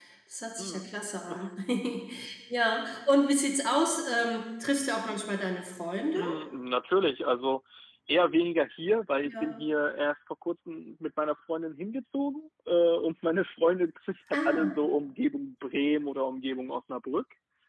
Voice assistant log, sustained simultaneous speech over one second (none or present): none